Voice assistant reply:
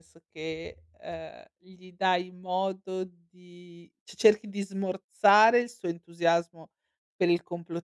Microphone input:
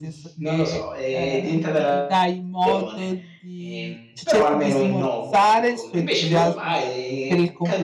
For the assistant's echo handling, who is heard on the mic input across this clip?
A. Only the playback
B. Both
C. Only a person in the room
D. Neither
B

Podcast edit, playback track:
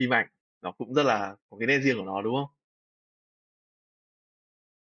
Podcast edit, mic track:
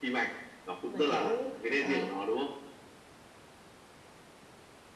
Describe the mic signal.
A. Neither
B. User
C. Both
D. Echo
C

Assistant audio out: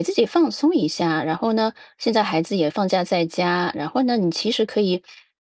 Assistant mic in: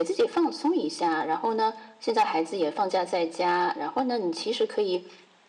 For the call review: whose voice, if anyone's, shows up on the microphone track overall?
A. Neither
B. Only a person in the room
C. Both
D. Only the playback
D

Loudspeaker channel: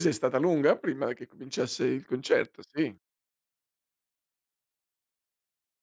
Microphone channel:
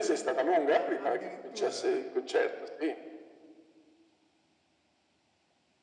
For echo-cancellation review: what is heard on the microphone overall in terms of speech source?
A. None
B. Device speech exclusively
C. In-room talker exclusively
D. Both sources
D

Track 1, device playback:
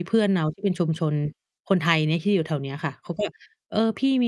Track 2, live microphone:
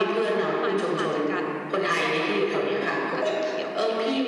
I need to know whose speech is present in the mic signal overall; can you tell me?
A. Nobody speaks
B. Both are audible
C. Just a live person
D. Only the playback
B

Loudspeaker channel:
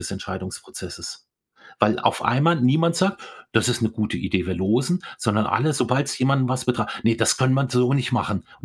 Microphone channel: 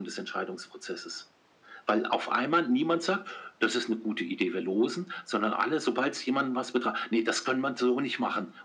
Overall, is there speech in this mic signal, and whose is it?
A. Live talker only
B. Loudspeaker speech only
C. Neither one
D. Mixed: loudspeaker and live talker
B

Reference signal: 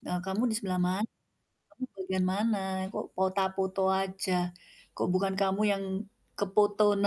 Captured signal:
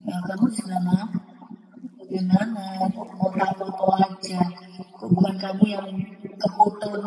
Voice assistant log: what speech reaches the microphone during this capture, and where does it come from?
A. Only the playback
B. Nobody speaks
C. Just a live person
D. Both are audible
A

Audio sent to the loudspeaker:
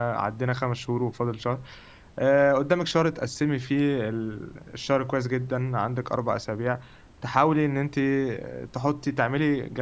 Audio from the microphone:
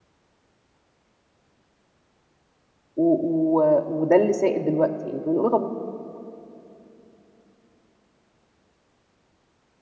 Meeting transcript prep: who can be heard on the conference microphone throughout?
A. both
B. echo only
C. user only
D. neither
C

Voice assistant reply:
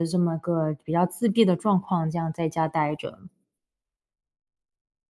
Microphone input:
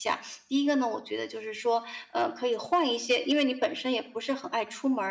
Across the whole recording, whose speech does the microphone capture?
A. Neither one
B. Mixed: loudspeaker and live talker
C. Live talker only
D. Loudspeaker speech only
C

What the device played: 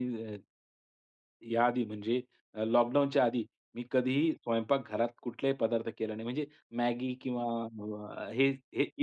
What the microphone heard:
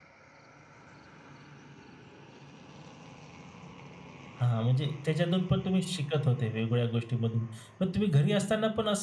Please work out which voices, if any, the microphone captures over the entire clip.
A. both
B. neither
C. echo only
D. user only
D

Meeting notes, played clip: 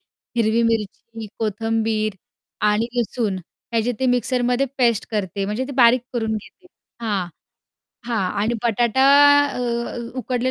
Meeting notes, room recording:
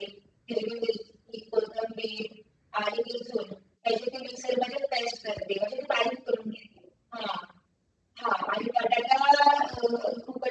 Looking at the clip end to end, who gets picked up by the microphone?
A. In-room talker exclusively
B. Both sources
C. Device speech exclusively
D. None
C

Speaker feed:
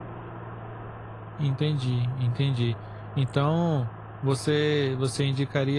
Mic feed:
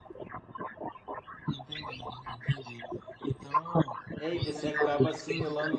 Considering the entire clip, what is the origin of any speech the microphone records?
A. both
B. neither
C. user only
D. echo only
A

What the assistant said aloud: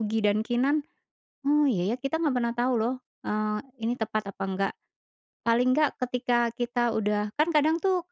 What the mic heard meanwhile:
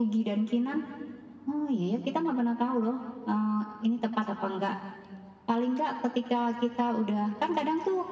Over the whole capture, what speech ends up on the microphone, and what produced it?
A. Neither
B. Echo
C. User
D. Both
B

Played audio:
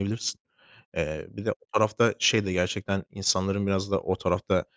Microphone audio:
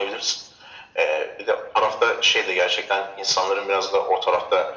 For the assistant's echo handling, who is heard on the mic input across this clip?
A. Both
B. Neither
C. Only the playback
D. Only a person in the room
C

